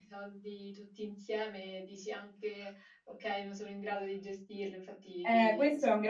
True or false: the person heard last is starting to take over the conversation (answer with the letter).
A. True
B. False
A